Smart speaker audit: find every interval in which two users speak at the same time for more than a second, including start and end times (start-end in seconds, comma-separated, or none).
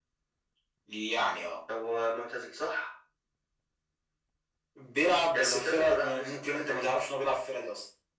5.3-6.9